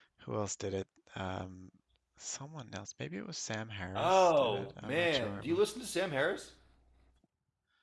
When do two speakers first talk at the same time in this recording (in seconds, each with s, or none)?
3.8 s